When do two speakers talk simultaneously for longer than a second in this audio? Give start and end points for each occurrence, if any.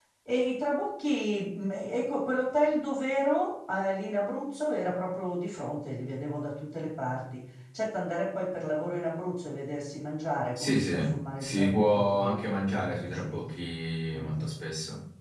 11.4-13.5

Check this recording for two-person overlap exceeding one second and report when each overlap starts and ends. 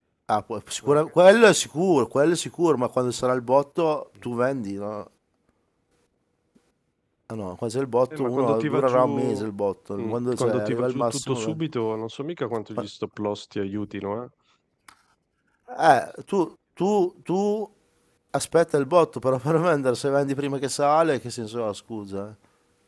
8.2-9.4, 10.0-11.6

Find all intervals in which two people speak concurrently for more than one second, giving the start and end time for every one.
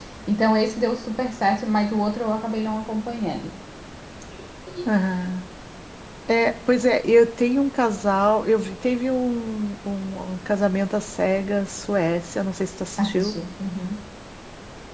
none

